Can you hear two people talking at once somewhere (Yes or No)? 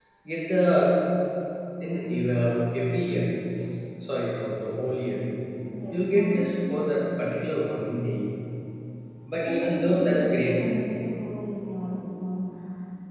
Yes